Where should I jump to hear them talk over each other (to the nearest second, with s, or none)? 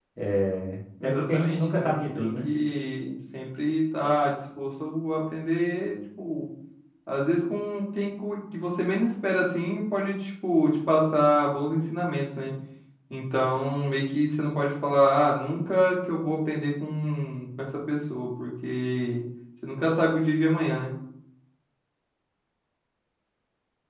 1 s